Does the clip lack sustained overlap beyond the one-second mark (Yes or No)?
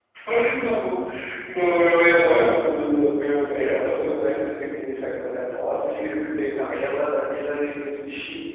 Yes